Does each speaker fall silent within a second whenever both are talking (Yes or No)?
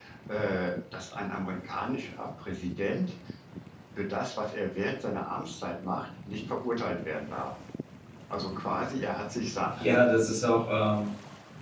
Yes